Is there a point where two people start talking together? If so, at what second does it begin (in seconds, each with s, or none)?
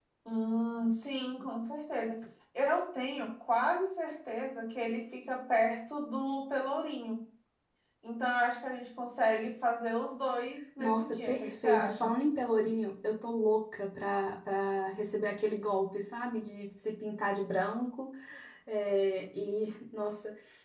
10.8 s